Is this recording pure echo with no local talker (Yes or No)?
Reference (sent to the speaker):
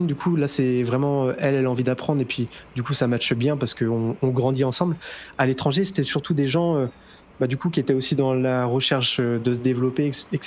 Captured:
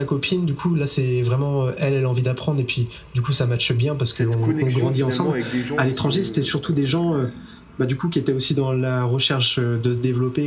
No